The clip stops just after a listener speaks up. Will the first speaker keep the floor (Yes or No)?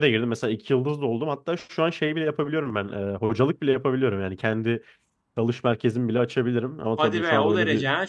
No